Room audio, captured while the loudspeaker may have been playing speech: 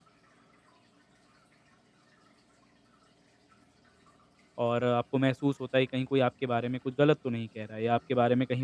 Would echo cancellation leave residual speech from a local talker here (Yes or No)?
Yes